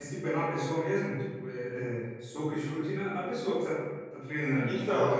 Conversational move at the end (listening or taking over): taking over